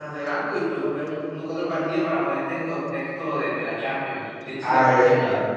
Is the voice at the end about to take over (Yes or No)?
Yes